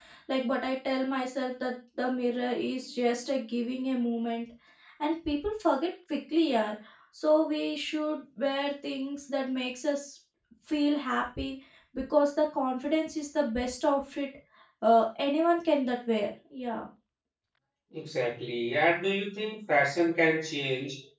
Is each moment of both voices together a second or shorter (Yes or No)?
Yes